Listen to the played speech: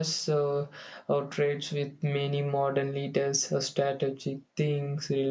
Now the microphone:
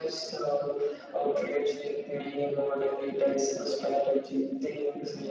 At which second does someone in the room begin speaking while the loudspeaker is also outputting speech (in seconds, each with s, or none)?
none